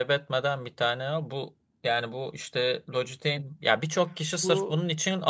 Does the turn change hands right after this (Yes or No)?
No